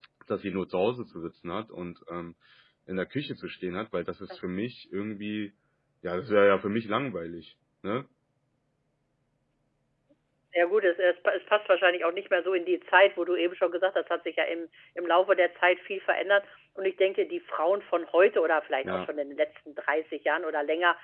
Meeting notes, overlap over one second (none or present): none